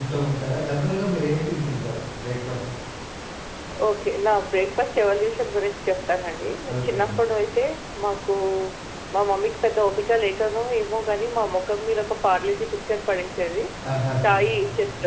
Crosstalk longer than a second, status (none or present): none